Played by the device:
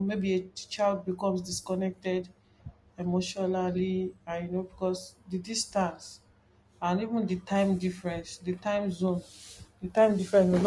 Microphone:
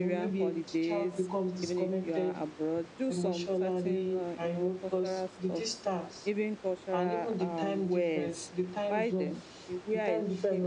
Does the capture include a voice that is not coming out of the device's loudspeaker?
Yes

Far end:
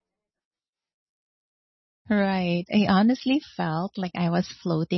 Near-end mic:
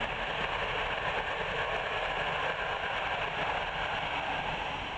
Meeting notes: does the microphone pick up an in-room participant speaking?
No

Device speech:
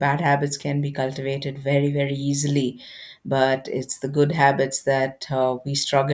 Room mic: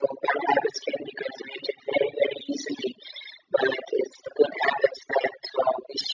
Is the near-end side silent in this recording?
Yes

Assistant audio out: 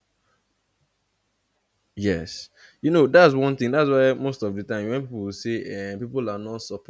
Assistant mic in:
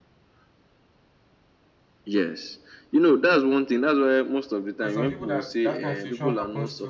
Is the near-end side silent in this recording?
No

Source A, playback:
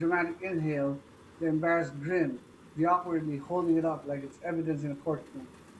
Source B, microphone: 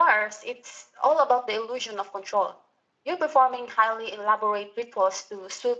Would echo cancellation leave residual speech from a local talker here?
Yes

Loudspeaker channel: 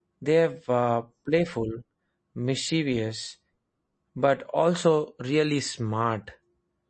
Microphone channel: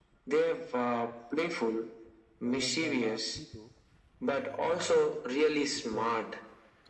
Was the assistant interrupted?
Yes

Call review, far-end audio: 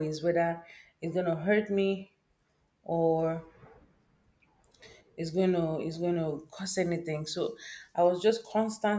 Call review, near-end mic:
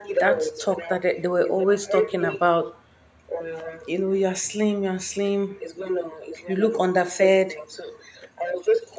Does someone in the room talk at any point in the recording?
Yes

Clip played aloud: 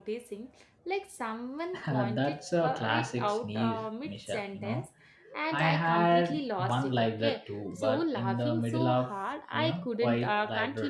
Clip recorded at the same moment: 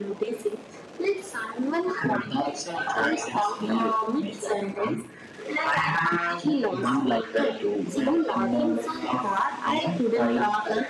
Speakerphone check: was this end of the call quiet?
Yes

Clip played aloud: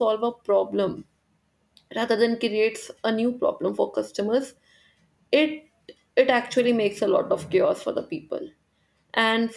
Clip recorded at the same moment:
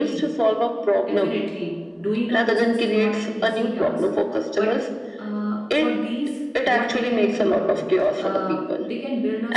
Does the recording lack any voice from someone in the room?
No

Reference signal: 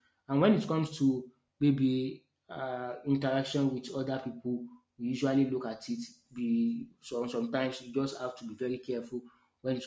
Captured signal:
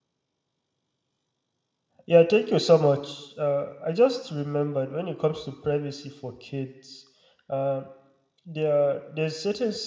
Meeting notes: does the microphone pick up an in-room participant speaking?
Yes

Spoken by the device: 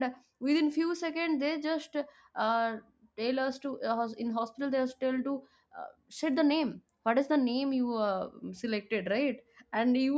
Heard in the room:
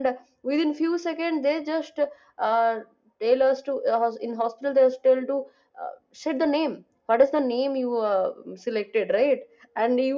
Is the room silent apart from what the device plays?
Yes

